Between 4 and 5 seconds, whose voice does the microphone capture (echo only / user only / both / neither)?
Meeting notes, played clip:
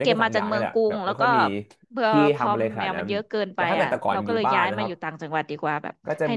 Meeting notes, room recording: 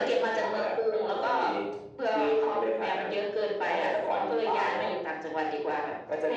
echo only